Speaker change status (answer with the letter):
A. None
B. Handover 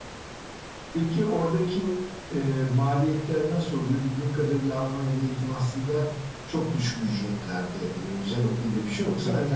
A